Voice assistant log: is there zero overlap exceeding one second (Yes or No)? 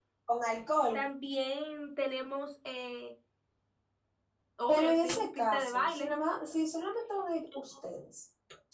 No